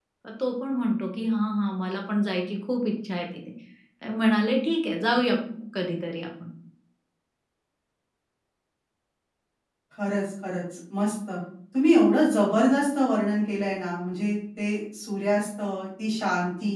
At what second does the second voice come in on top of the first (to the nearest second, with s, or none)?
none